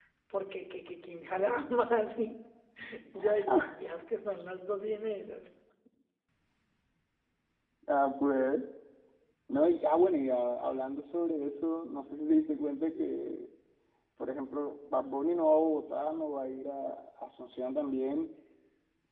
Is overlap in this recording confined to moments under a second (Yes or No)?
Yes